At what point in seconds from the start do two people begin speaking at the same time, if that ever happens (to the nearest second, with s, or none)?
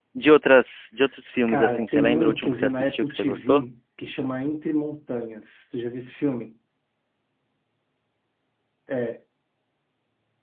1 s